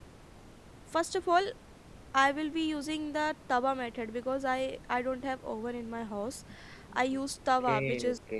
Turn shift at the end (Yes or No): No